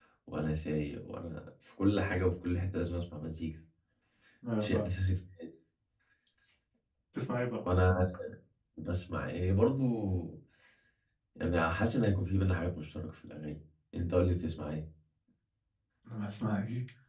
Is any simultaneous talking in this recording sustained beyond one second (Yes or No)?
No